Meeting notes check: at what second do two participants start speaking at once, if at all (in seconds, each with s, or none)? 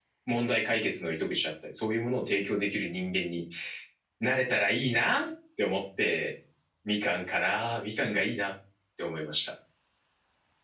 none